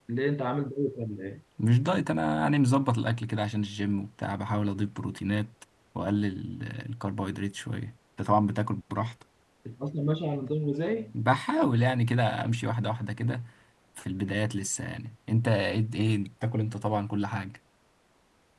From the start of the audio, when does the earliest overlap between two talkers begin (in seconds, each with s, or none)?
none